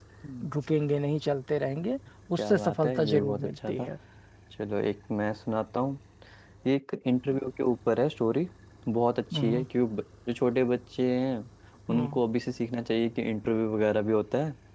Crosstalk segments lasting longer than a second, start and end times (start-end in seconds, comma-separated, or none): 2.4-3.9